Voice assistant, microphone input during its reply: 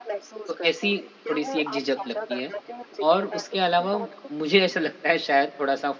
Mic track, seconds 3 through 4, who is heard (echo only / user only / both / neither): both